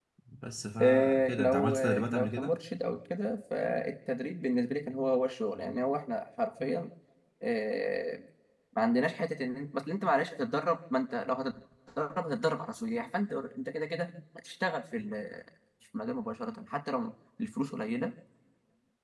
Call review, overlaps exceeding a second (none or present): present